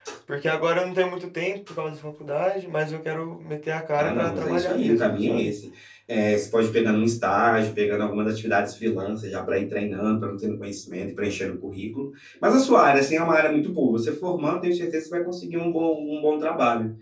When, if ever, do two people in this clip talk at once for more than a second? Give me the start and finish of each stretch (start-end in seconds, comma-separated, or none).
4.0-5.5